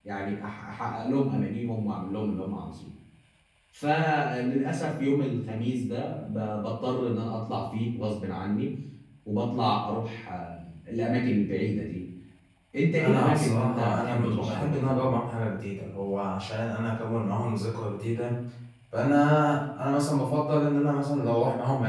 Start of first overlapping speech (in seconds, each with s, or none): 13.0 s